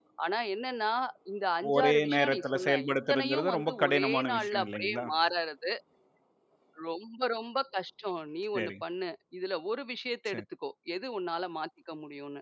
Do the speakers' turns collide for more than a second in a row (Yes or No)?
Yes